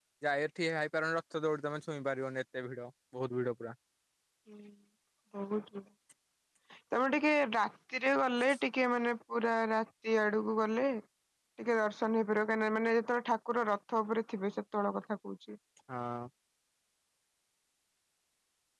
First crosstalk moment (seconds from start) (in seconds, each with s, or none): none